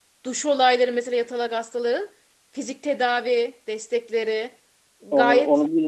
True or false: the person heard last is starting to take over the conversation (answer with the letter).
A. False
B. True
B